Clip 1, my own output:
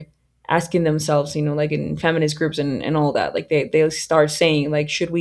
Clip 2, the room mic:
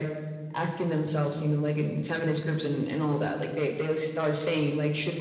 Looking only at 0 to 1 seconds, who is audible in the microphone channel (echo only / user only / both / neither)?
echo only